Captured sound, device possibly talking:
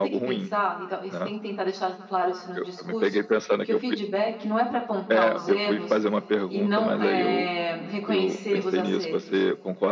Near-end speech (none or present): present